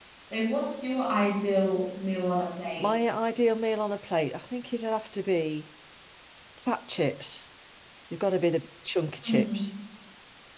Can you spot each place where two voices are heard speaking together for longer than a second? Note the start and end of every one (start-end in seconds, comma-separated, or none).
none